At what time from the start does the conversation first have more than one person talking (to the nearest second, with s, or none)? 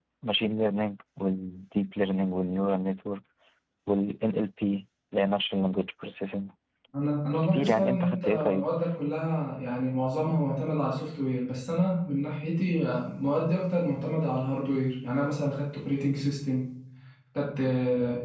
7 s